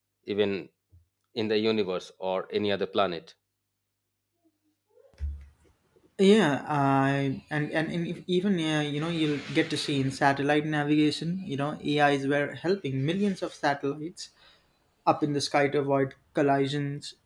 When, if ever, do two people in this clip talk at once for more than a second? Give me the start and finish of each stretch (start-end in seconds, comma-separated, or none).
none